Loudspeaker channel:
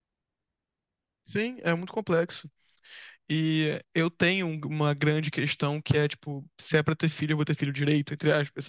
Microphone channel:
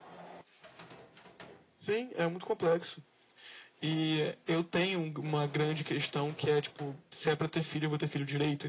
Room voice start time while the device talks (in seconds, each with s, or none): none